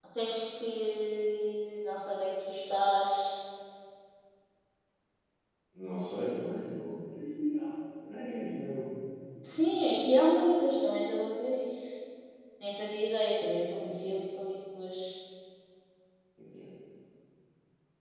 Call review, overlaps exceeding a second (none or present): none